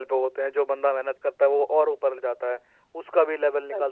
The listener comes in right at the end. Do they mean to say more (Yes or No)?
No